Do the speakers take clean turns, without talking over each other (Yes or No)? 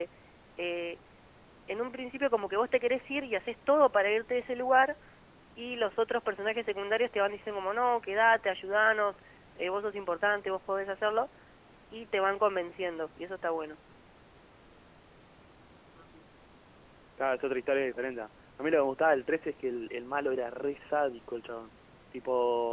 Yes